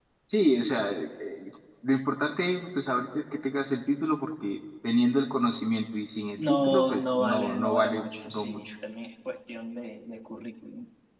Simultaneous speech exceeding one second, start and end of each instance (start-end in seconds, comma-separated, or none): 6.4-8.7